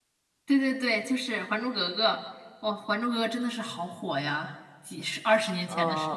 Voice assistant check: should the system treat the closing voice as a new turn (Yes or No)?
Yes